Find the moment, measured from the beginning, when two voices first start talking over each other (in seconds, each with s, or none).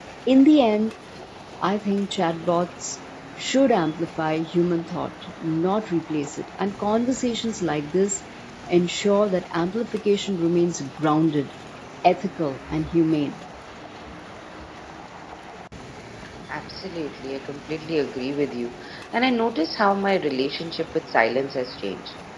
none